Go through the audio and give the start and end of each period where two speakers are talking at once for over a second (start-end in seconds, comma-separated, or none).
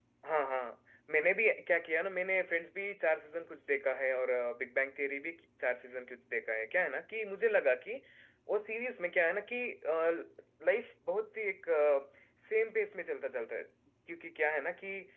none